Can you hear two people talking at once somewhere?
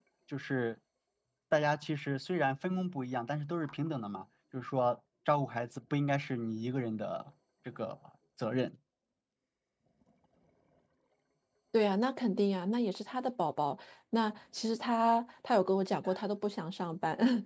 No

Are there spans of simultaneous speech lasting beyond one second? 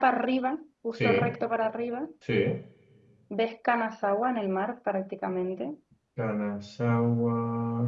No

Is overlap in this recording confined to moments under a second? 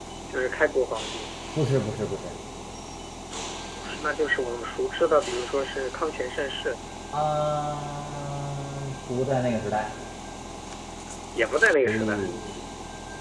Yes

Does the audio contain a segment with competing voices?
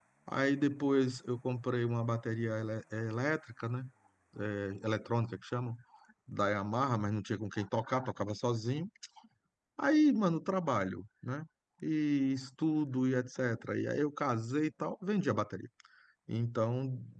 No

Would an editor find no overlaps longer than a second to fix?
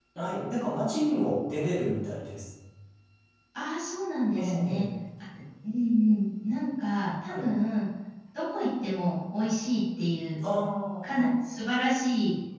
Yes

